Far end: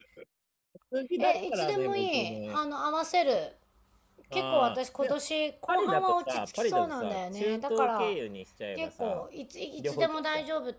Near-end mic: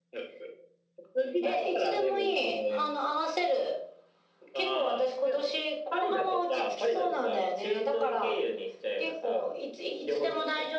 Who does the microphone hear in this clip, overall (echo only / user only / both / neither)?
echo only